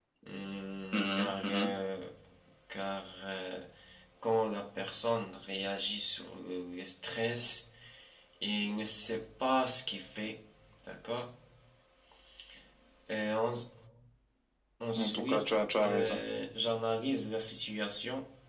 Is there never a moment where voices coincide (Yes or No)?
No